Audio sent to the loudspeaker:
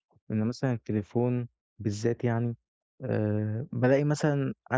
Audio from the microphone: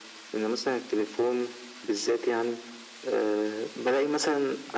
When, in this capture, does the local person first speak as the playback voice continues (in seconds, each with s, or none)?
none